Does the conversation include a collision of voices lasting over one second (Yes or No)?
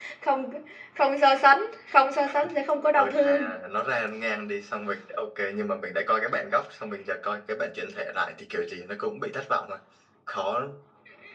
No